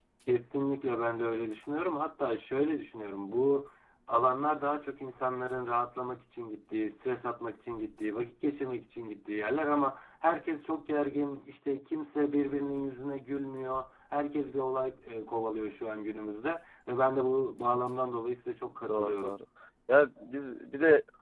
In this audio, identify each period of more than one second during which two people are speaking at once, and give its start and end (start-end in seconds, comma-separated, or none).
none